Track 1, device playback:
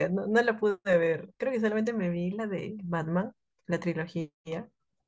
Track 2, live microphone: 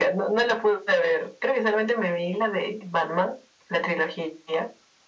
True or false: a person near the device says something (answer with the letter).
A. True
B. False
B